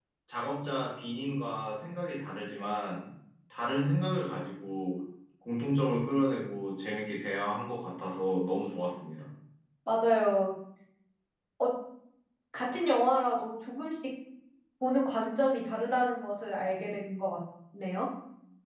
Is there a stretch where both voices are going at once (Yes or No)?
No